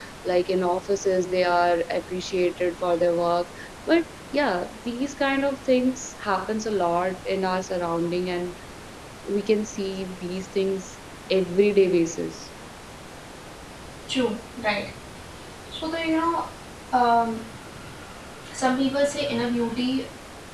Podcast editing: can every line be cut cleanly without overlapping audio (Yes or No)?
Yes